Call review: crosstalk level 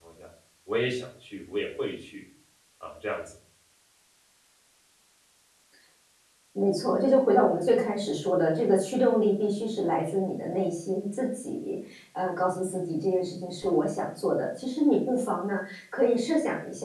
none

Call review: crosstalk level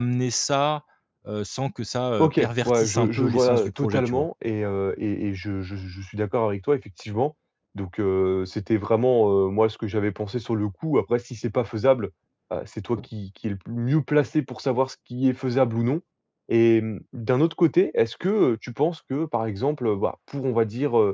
present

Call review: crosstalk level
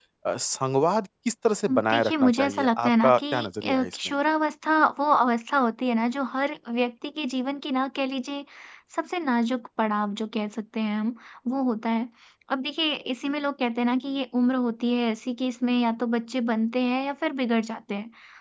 present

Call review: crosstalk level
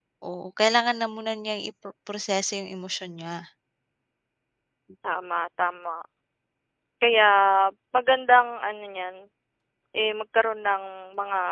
none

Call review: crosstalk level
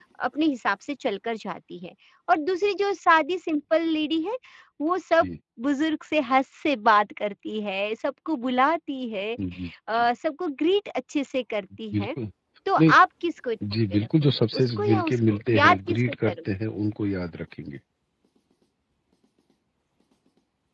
present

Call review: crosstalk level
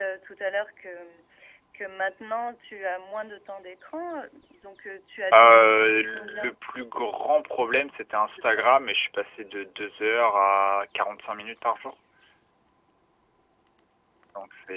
present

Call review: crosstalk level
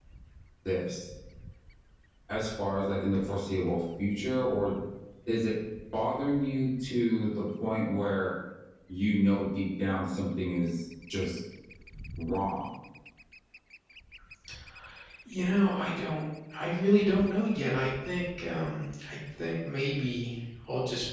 none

